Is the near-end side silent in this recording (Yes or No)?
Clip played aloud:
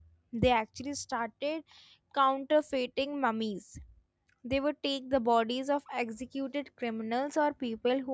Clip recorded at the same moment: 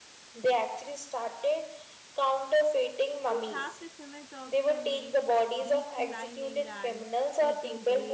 No